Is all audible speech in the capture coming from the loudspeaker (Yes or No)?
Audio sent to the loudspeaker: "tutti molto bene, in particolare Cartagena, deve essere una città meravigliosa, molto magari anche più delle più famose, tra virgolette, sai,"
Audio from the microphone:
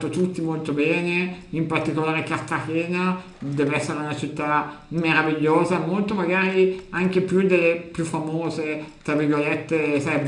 Yes